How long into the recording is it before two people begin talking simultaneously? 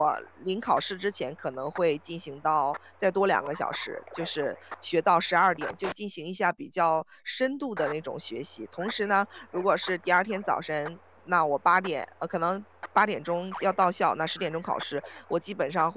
none

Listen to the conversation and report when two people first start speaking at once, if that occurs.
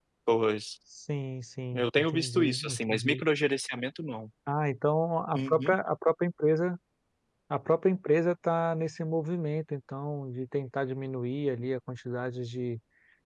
2 s

